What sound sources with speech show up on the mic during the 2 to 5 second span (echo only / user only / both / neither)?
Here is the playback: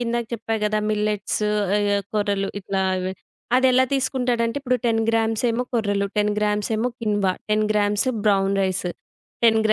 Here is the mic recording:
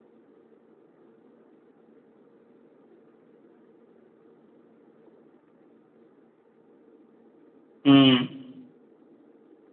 neither